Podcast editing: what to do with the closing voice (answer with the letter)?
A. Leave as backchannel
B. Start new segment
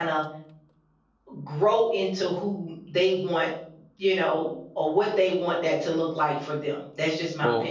B